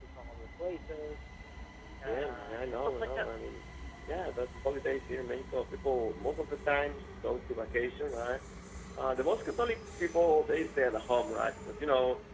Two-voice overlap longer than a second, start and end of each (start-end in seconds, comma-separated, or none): 2.0-3.3